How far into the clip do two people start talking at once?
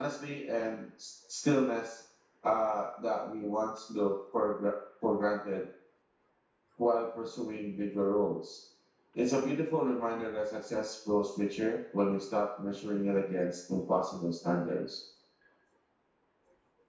none

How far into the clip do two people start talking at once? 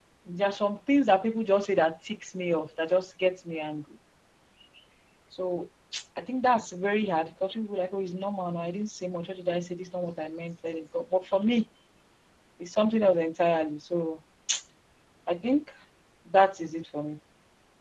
none

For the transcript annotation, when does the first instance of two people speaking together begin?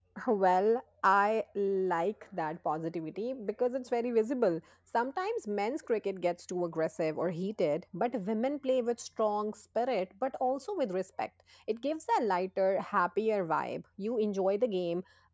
none

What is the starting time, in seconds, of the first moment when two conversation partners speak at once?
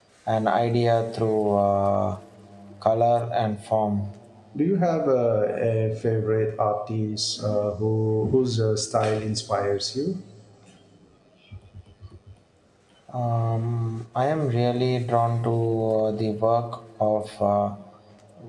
none

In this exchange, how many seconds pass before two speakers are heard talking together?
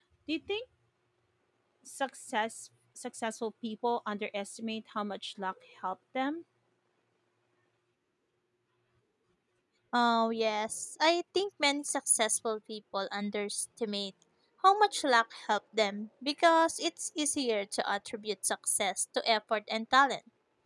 none

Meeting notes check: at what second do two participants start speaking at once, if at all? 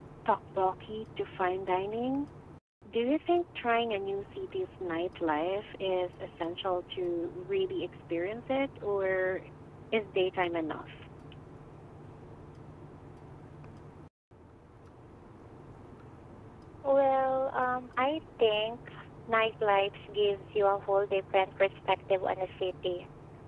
none

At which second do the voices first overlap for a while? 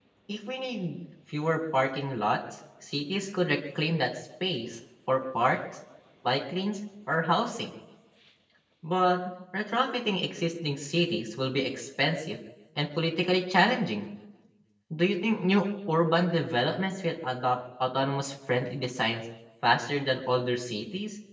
none

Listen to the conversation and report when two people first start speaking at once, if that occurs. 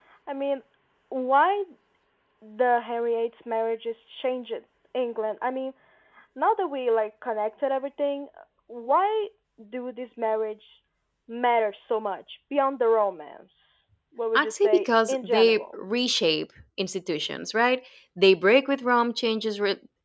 14 s

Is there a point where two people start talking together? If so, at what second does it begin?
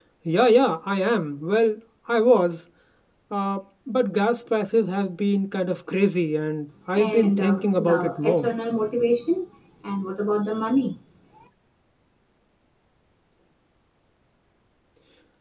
7 s

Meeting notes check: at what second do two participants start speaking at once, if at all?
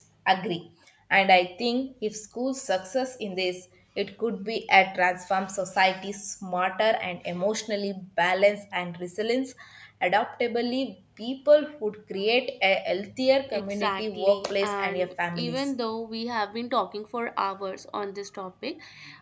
14 s

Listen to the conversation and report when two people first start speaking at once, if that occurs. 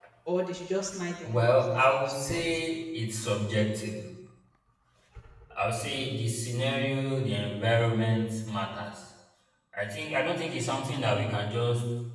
1 s

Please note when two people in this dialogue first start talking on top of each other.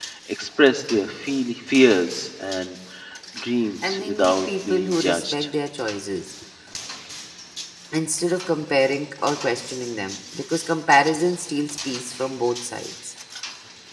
4 s

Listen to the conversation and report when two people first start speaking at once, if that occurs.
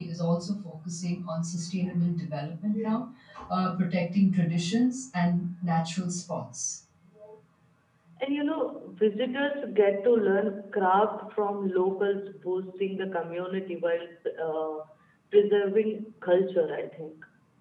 none

